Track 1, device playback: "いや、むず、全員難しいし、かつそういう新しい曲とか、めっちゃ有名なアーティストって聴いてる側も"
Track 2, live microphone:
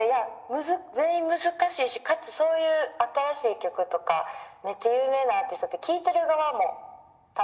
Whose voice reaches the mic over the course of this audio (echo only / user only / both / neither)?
echo only